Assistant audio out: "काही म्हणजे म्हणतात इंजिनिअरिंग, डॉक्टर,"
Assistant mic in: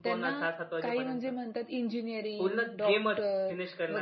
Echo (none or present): present